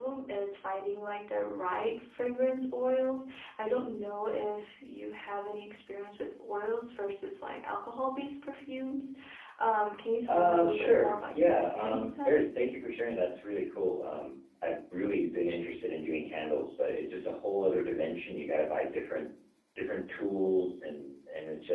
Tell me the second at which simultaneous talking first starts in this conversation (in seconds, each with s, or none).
10.3 s